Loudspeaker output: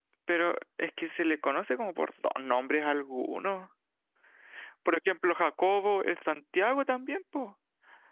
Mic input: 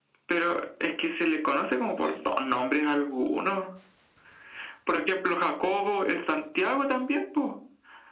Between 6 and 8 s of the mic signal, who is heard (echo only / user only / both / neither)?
echo only